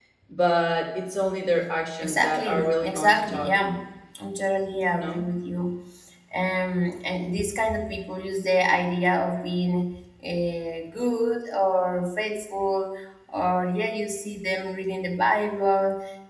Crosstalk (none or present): present